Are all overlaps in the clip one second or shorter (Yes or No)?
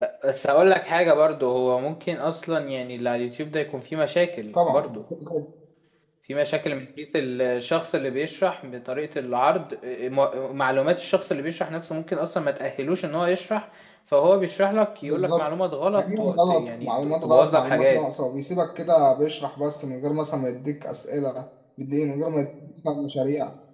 No